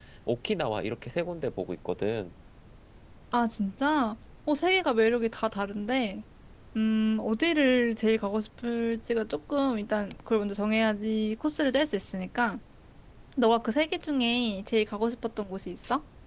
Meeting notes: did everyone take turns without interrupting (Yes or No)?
Yes